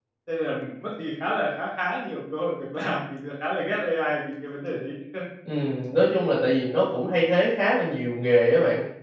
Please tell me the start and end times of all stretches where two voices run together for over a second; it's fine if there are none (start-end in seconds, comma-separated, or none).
none